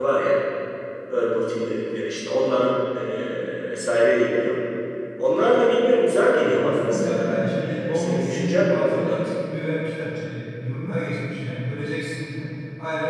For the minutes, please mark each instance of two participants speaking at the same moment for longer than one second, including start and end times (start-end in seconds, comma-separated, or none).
6.4-9.2